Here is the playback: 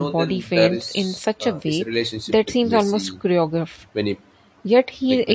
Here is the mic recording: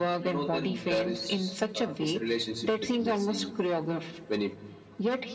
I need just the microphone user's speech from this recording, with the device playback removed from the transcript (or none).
none